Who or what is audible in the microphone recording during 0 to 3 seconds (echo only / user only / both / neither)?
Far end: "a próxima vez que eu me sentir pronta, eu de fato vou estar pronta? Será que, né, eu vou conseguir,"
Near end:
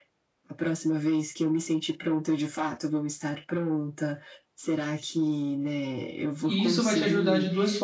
echo only